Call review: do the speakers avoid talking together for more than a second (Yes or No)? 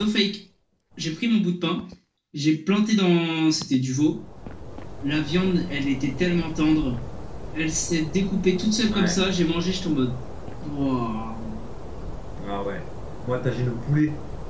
Yes